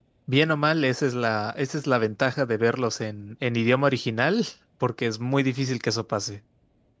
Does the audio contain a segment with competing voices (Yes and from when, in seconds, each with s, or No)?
No